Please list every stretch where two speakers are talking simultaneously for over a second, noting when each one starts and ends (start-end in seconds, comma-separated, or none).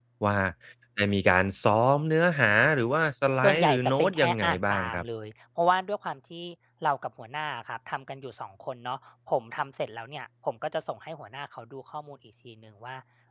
3.4-5.0